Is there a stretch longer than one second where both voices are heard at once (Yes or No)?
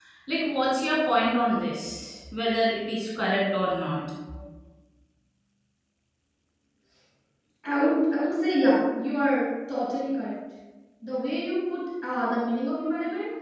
No